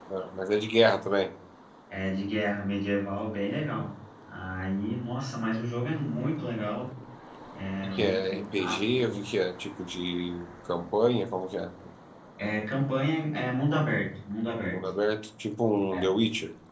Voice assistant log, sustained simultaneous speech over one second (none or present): present